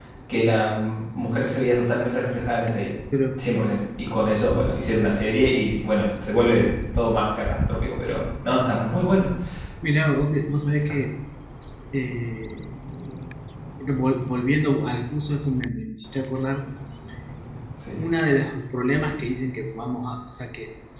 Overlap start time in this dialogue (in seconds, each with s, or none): none